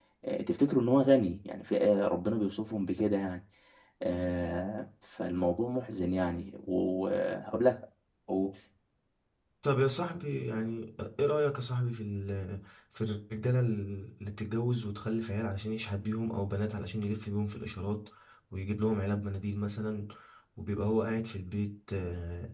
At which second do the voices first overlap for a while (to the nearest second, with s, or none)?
none